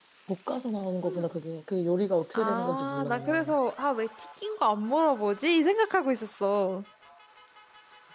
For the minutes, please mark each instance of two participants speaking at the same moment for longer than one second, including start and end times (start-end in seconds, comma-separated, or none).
2.3-3.5